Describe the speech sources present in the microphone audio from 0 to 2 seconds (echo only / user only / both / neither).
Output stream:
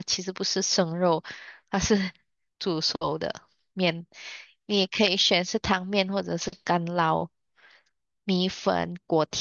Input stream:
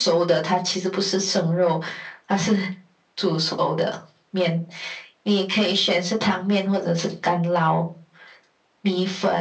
echo only